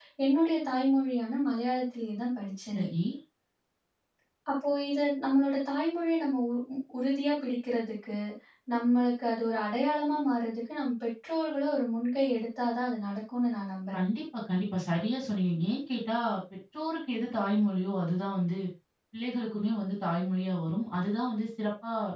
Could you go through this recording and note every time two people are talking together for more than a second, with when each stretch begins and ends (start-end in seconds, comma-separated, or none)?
none